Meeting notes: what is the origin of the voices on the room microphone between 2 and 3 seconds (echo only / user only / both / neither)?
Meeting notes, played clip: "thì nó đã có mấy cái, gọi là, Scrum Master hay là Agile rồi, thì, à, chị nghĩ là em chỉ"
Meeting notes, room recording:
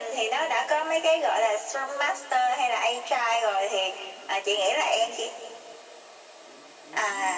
echo only